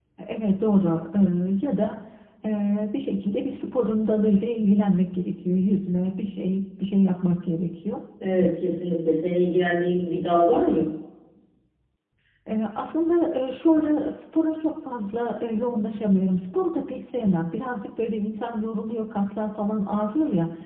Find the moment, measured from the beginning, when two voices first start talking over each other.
none

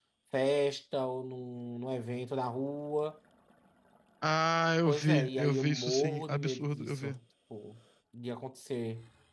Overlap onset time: 5 s

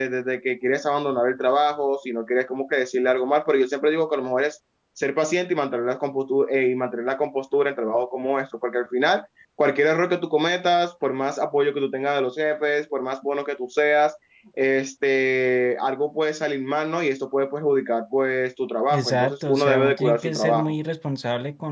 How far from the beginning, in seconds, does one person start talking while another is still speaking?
19 s

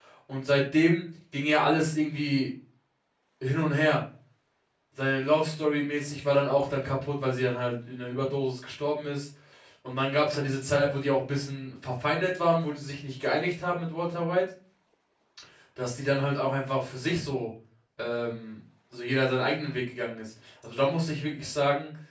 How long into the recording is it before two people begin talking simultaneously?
none

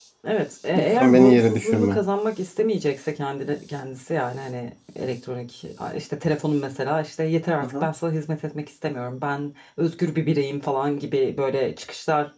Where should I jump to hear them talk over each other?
1 s

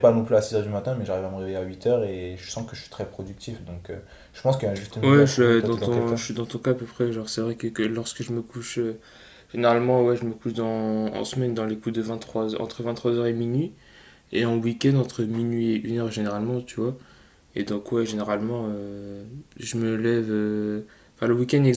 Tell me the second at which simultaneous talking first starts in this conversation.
5 s

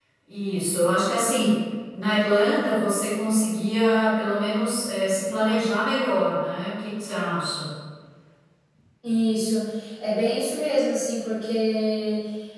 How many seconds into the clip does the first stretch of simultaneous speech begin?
none

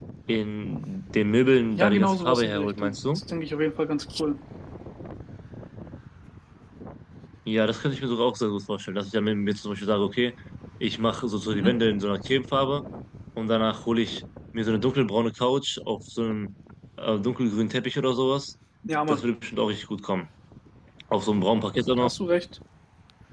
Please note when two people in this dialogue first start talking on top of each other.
2 s

